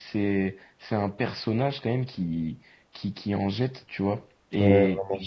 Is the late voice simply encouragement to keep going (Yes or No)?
Yes